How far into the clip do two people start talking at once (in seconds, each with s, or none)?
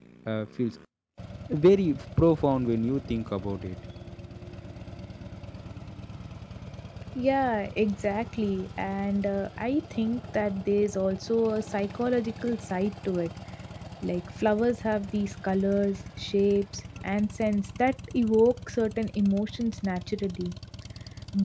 none